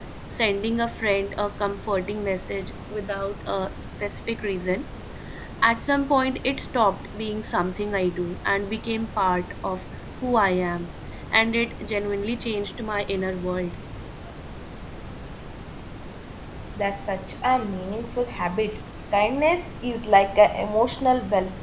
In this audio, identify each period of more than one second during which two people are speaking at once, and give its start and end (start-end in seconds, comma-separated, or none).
none